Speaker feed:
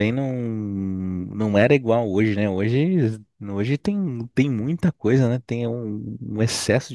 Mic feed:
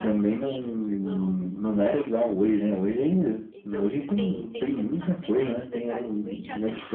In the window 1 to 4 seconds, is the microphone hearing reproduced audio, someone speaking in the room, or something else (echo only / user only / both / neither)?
both